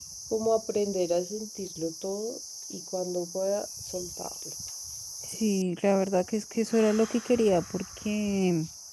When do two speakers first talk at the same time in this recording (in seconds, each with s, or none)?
none